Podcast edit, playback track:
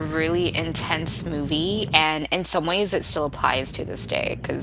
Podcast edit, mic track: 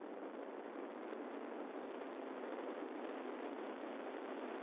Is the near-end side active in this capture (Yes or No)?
No